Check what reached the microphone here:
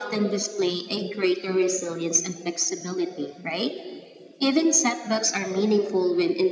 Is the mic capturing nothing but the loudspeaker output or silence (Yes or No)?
Yes